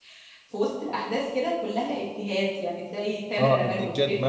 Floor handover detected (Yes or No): Yes